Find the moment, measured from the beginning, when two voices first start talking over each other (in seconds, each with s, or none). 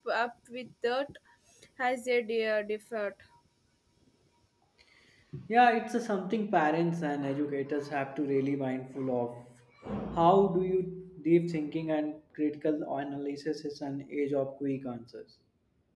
none